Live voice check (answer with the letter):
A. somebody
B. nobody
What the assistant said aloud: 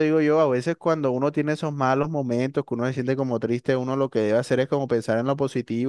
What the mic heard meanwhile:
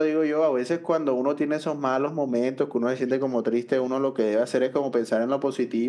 B